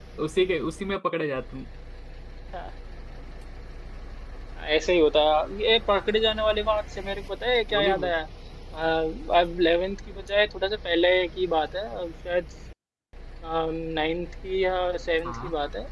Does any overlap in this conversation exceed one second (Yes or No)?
No